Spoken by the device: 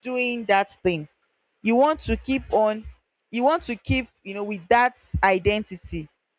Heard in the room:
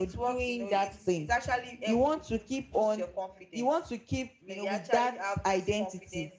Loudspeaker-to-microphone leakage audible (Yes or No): Yes